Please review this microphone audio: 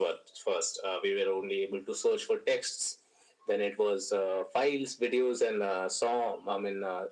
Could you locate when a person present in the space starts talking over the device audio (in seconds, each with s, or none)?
none